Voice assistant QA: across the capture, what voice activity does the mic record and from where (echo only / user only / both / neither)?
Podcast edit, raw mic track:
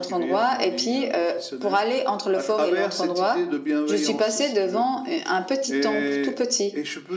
echo only